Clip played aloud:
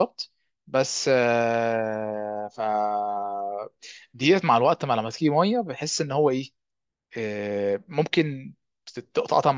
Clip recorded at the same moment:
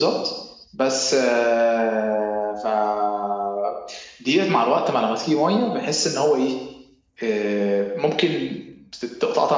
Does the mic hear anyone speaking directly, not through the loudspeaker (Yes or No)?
No